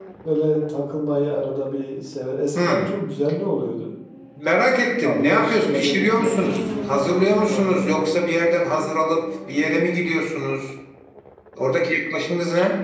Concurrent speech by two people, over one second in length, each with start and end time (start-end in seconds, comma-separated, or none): 5.0-8.0